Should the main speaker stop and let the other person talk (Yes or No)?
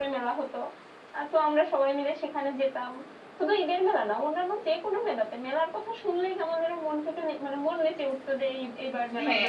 Yes